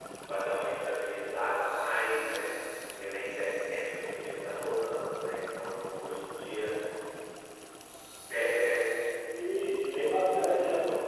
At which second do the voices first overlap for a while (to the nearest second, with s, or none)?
none